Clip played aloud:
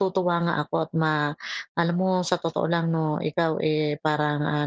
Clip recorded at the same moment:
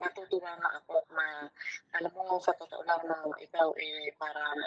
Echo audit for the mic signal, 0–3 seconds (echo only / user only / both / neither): echo only